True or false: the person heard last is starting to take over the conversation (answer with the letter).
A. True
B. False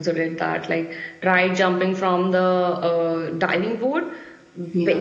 B